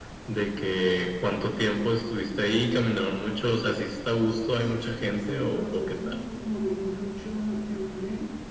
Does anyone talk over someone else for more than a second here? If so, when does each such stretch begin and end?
4.5-6.2

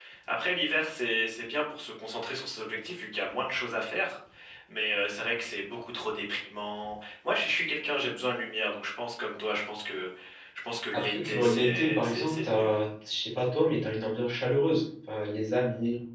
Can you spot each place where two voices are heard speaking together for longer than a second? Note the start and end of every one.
10.9-12.7

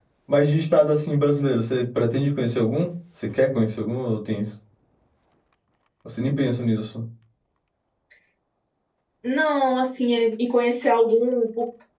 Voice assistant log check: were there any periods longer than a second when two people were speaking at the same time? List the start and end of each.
none

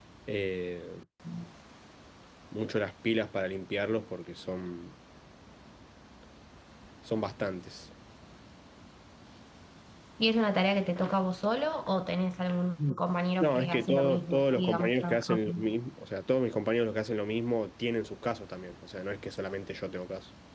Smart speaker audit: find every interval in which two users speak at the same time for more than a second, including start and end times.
13.4-15.6

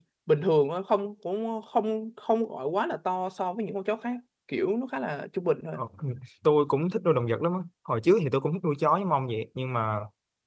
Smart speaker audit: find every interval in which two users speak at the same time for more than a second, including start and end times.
none

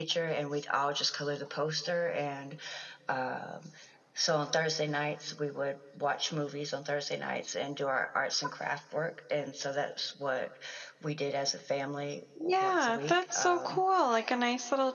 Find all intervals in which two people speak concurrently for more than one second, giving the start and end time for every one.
12.4-13.8

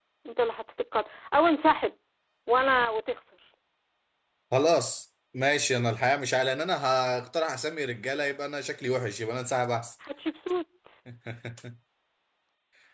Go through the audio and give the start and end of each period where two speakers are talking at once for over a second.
none

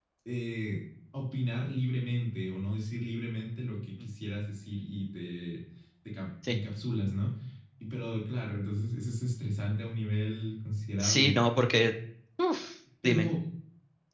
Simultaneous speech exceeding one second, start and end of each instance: none

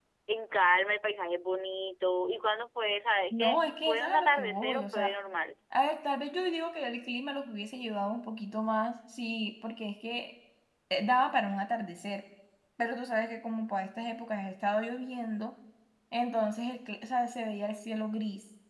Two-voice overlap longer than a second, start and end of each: 3.3-5.1

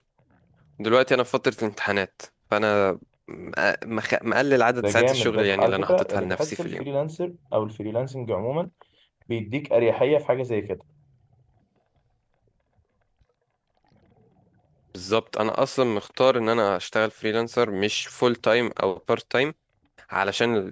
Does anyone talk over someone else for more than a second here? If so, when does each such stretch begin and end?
4.9-6.8

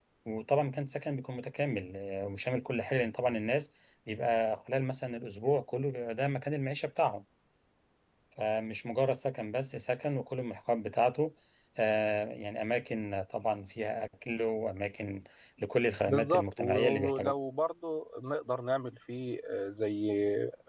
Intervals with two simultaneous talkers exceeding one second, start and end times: 16.1-17.3

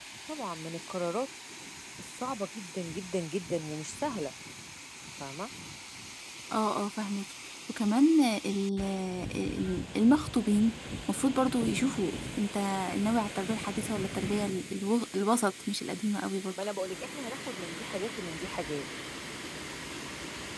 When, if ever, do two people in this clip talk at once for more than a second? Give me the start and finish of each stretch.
none

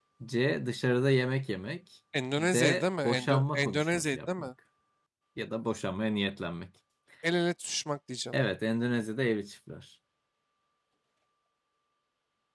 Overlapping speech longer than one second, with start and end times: 2.4-4.5

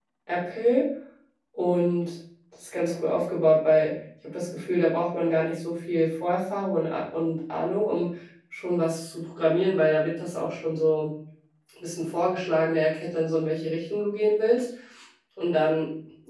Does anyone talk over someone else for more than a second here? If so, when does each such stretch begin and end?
none

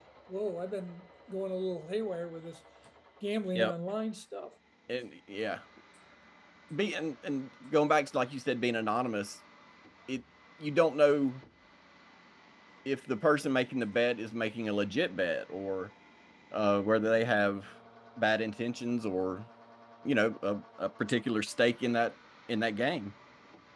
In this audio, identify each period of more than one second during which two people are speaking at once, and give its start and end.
none

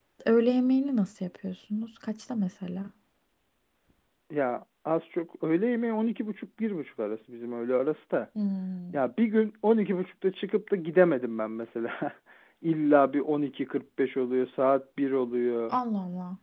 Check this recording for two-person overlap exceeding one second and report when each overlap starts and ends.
none

